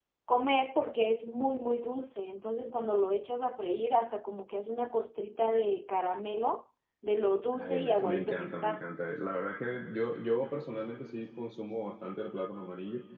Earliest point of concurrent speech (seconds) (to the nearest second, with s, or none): 8 s